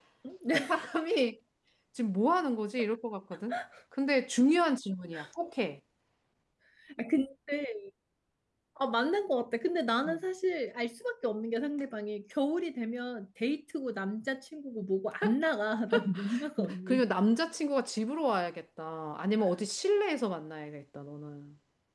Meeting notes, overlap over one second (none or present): none